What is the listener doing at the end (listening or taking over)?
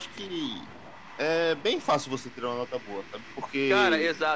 taking over